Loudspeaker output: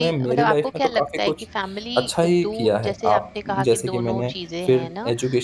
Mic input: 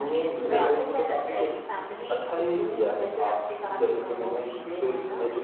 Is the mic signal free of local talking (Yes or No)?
No